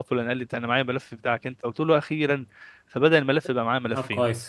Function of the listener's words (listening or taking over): listening